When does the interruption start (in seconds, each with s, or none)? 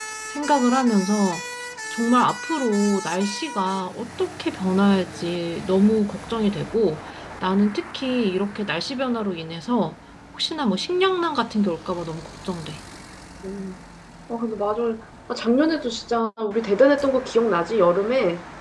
none